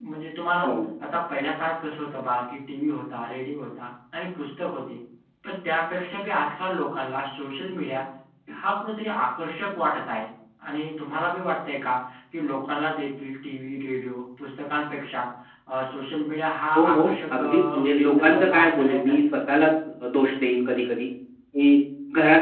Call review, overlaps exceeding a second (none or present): present